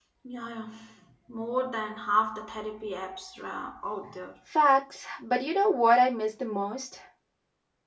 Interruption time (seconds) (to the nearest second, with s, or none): none